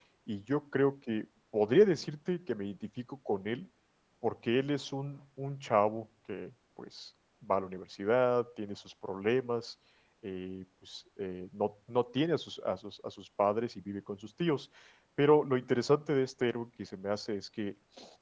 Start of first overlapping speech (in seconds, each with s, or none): none